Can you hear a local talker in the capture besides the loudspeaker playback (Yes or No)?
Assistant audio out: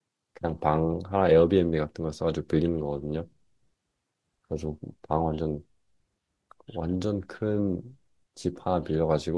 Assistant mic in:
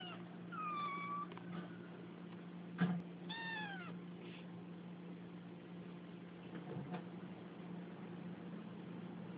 No